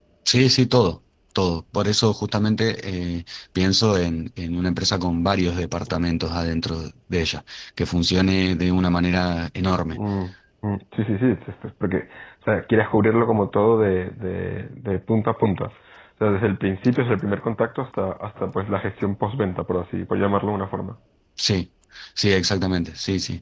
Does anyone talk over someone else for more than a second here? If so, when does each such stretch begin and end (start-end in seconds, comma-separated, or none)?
none